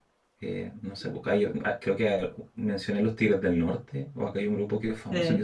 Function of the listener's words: listening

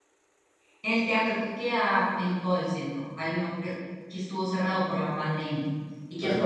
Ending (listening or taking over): listening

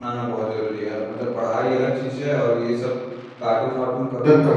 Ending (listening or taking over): listening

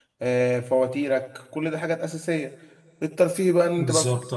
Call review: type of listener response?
listening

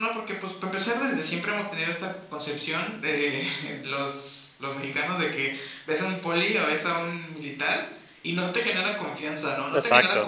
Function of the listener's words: taking over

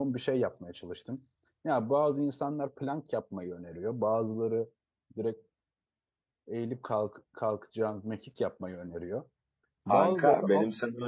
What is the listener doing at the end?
taking over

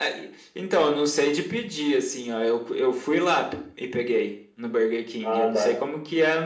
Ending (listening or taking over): listening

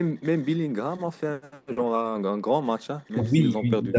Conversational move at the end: taking over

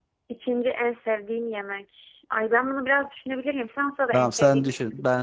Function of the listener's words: taking over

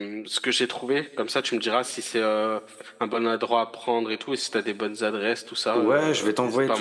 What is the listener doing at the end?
taking over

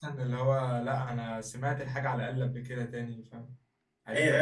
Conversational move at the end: taking over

